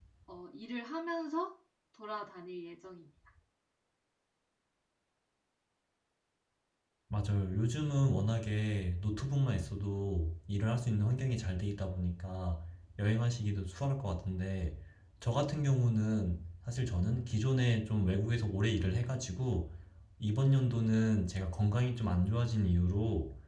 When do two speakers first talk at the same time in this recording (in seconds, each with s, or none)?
none